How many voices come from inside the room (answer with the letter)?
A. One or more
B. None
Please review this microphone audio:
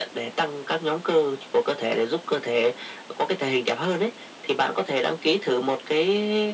B